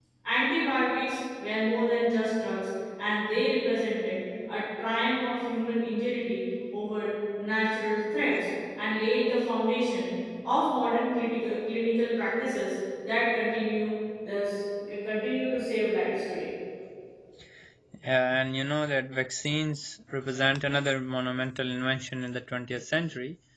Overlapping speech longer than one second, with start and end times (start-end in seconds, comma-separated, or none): none